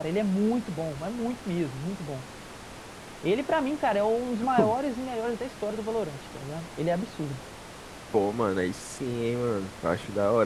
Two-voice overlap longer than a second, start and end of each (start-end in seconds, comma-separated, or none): none